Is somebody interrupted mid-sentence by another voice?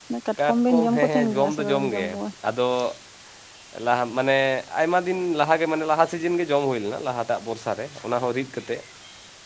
Yes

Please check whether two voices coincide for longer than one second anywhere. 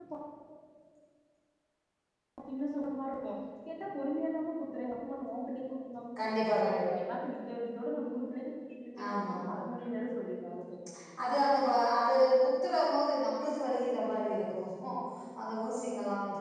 No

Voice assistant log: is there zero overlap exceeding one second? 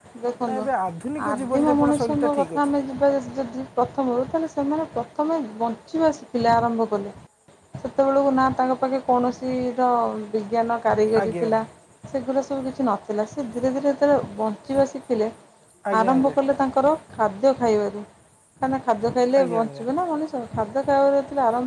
No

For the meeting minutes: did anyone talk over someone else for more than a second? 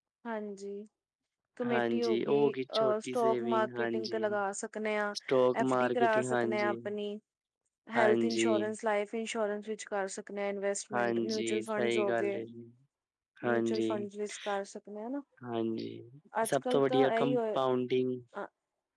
Yes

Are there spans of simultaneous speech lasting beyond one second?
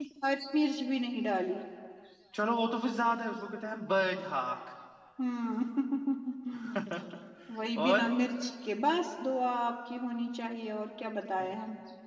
No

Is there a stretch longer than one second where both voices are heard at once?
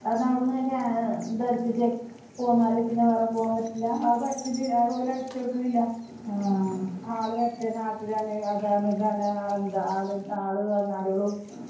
No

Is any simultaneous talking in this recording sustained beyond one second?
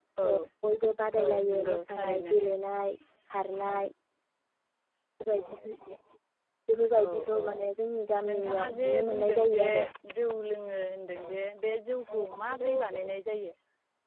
Yes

